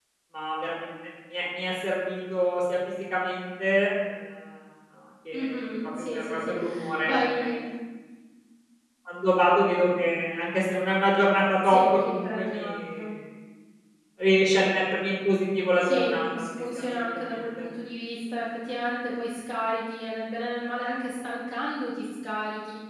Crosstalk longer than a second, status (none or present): present